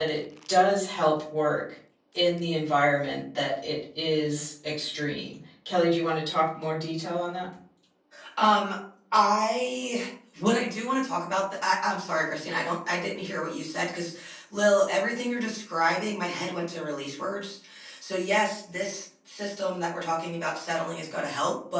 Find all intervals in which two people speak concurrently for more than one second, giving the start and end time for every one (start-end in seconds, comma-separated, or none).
none